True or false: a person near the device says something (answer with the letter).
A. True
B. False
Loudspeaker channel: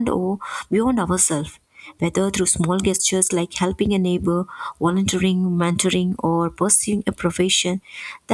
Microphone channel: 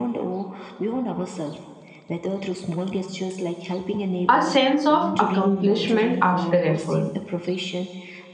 A